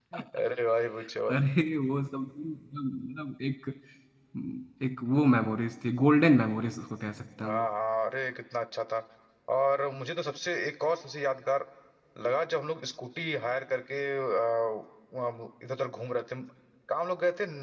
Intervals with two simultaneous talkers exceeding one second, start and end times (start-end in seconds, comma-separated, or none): none